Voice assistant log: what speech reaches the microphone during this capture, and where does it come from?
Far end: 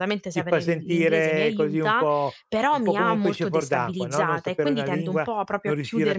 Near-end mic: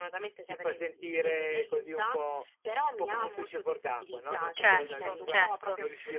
both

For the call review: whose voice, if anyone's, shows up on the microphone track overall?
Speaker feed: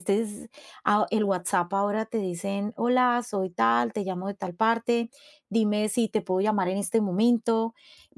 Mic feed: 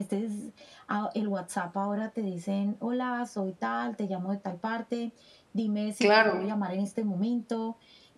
both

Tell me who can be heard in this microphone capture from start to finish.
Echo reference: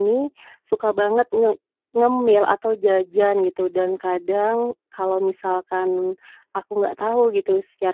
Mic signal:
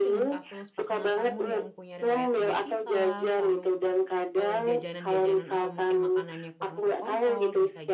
both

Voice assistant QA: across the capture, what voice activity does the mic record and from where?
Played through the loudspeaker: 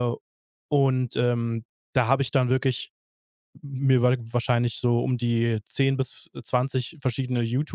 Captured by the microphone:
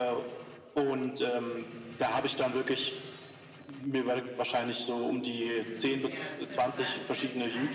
both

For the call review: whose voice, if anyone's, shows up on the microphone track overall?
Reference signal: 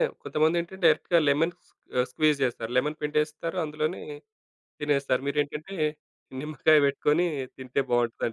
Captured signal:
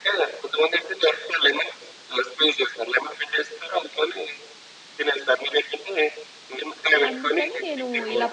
both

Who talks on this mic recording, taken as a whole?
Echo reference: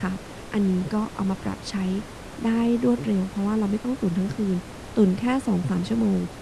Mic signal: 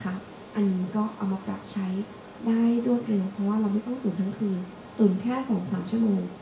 echo only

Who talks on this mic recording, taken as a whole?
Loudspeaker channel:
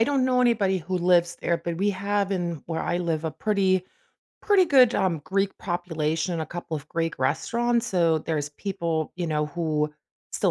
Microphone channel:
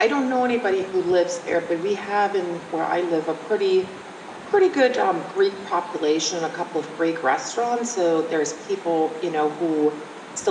echo only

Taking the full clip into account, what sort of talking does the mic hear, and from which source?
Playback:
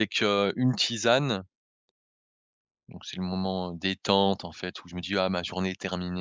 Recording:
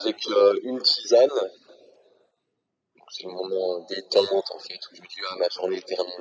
echo only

